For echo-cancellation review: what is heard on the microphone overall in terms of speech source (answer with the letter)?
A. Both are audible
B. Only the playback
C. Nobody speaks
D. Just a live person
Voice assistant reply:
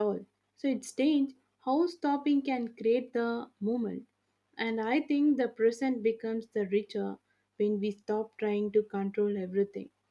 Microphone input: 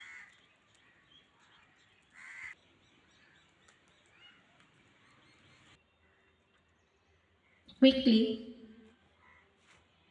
D